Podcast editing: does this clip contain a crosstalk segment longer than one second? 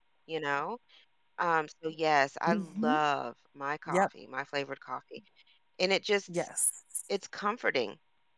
No

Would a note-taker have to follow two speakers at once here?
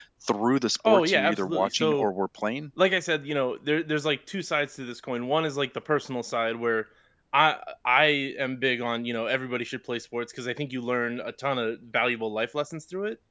Yes, from 0.9 s

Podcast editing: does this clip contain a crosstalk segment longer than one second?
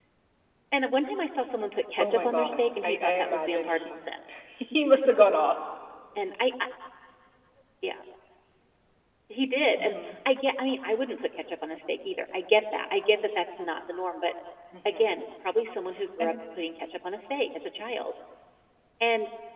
Yes, from 2.0 s

